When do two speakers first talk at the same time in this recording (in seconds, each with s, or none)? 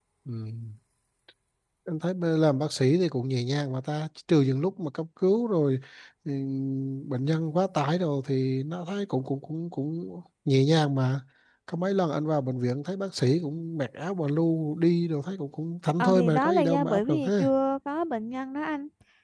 16.0 s